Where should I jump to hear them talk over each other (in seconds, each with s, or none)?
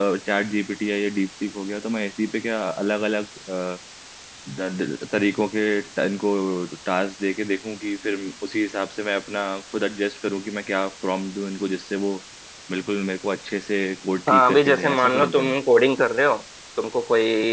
14.3 s